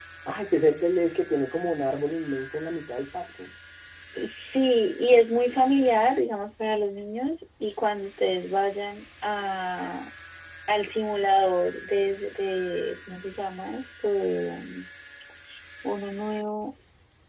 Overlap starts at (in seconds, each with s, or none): none